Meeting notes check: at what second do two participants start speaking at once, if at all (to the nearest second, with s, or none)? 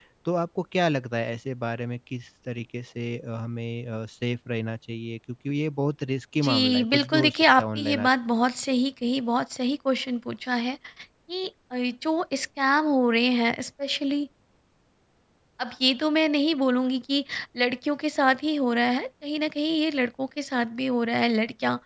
6 s